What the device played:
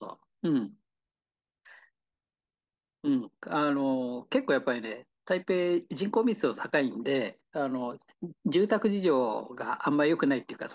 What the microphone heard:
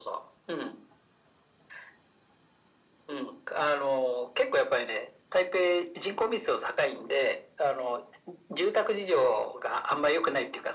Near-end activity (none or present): none